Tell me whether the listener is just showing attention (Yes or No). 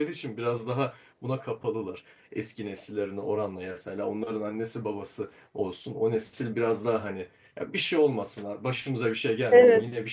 Yes